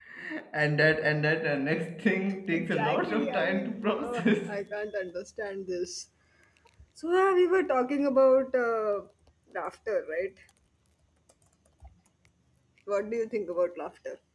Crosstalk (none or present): present